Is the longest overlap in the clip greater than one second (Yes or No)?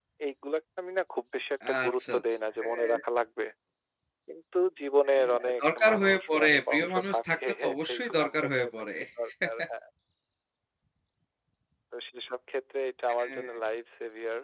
Yes